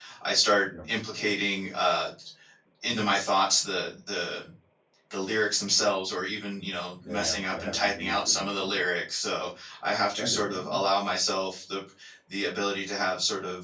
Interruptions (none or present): present